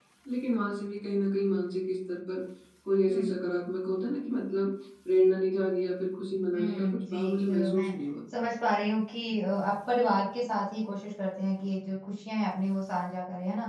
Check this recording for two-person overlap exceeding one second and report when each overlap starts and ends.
6.5-7.9

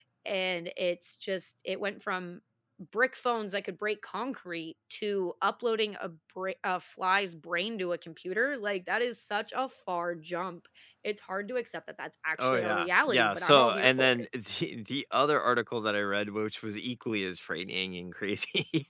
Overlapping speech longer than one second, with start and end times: 12.4-14.2

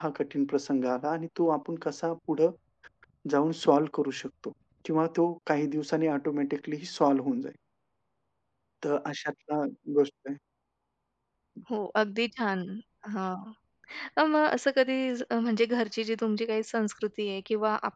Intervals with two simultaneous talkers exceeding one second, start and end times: none

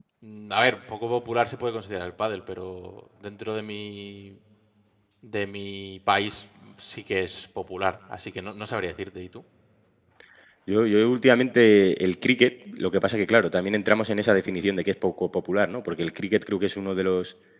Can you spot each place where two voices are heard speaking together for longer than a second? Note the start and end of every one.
none

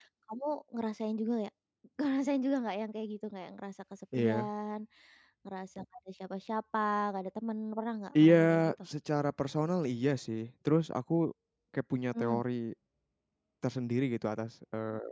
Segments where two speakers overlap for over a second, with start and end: none

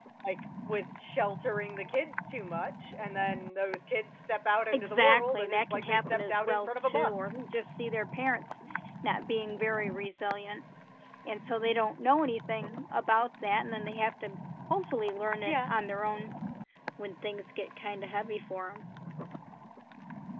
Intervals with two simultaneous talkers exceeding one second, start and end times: 4.7-7.4

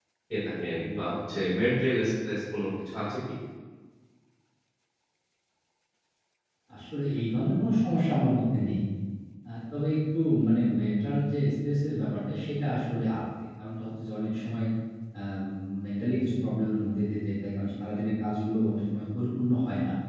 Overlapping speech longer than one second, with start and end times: none

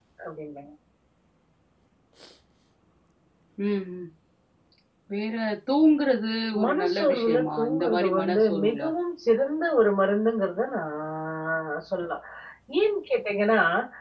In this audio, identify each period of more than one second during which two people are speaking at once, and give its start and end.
6.6-8.8

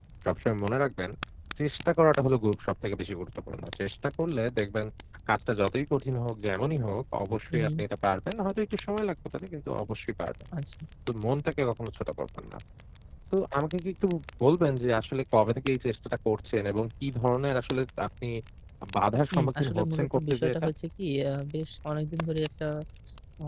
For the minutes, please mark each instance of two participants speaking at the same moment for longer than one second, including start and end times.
19.3-20.7

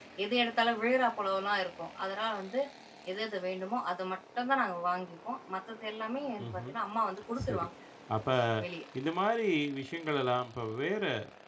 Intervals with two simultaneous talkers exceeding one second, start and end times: none

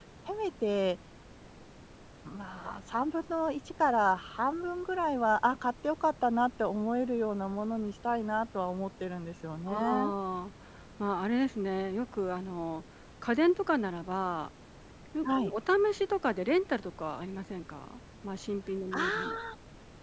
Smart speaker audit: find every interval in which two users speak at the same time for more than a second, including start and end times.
none

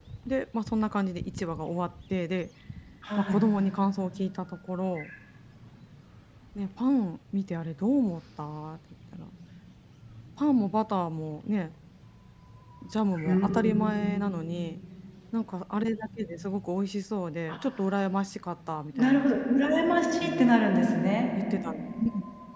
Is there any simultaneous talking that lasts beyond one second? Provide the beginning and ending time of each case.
none

